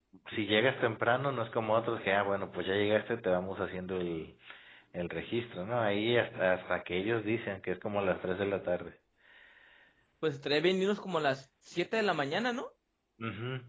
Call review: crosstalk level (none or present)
none